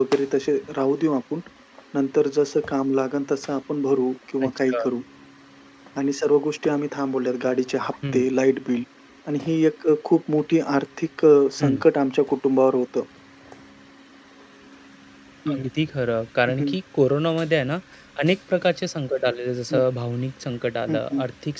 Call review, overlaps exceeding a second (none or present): none